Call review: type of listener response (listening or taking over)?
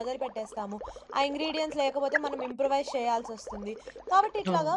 listening